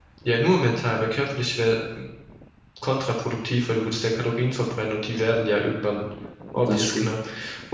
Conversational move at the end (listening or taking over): listening